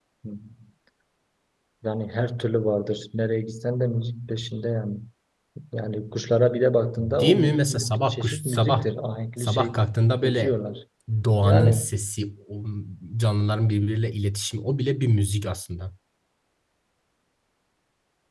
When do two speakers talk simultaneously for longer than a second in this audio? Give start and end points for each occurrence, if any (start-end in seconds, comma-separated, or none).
7.0-8.9